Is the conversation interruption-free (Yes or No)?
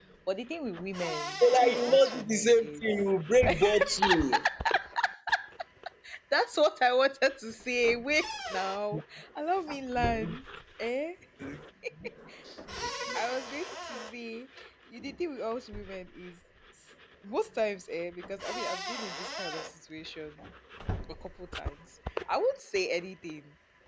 No